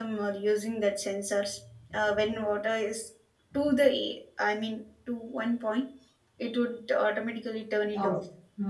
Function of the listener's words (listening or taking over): taking over